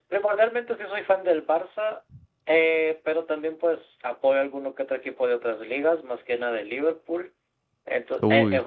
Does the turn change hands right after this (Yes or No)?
No